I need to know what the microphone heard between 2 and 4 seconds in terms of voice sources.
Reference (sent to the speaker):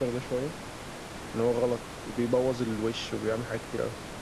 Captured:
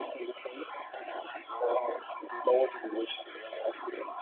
echo only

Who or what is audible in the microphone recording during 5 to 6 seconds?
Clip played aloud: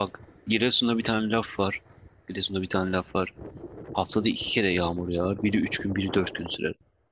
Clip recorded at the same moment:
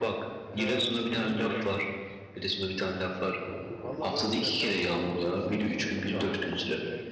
both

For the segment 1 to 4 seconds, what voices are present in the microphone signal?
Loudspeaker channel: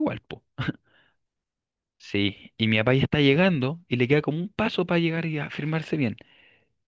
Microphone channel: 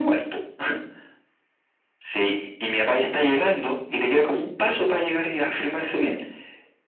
echo only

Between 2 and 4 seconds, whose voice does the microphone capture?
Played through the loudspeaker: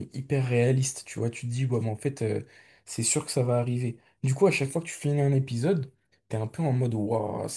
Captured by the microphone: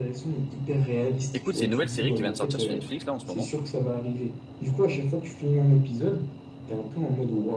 both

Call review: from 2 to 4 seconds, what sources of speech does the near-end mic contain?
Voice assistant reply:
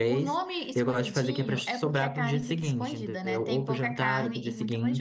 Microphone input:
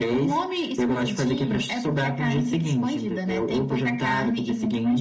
echo only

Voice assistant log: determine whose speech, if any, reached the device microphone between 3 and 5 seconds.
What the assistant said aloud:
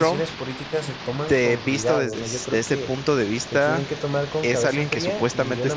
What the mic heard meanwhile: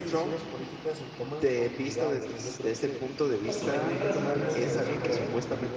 both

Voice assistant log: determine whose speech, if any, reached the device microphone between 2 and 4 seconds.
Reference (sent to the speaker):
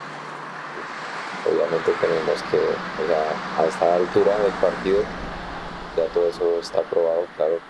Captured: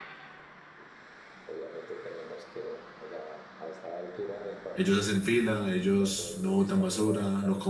echo only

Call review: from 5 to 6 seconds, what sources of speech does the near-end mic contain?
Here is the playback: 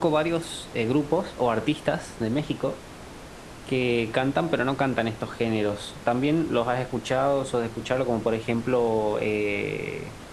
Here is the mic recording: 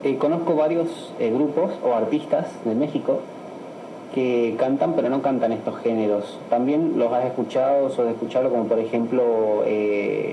echo only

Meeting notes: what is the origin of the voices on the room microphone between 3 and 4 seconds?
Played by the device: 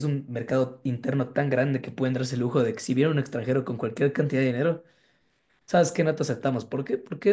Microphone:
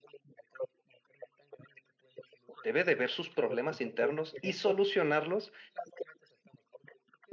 both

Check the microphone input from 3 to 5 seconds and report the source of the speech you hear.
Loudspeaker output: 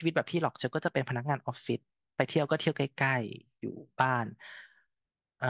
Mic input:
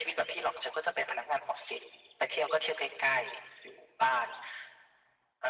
echo only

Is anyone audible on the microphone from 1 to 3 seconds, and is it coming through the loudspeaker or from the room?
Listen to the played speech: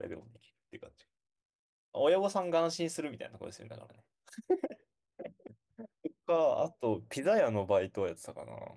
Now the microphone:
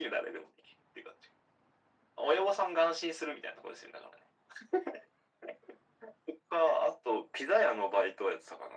echo only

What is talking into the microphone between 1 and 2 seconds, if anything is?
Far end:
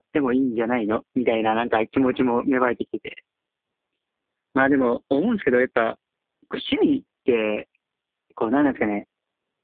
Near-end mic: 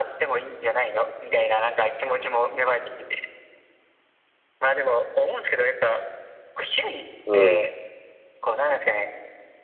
echo only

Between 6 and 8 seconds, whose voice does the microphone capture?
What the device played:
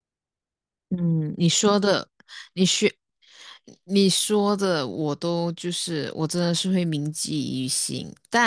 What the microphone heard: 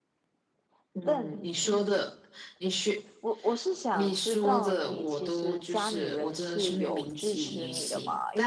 both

